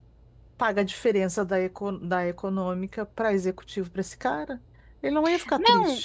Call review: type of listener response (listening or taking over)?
taking over